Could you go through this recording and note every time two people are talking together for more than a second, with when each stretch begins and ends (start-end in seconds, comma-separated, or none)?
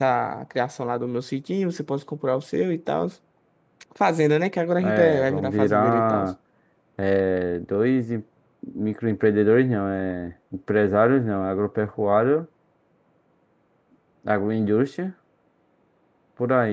4.8-6.2